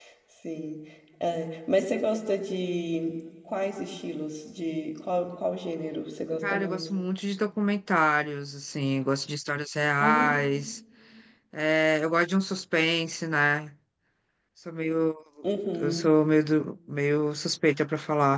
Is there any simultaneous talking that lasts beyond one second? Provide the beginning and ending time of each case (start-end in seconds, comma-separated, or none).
none